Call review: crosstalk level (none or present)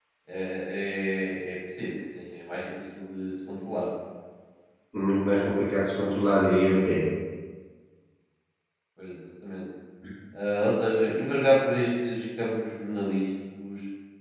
none